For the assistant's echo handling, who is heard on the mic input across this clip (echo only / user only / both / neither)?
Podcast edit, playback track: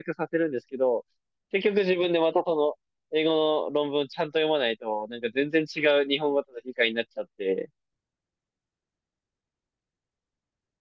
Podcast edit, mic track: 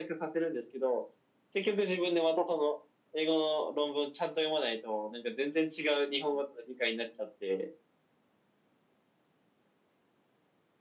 echo only